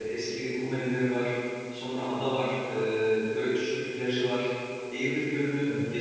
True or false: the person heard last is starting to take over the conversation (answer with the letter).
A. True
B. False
B